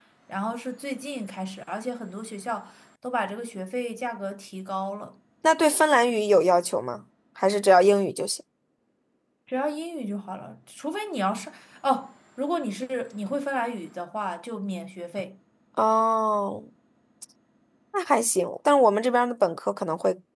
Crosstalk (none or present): none